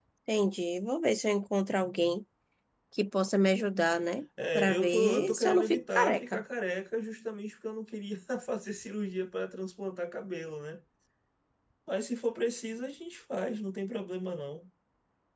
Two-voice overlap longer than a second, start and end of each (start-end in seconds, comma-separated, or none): 4.5-6.4